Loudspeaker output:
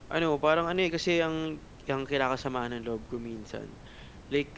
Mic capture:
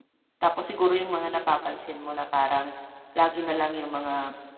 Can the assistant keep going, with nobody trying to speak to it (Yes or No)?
No